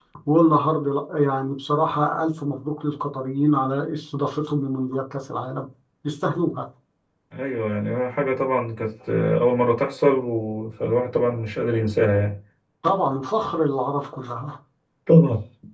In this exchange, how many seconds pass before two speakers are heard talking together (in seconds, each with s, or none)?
none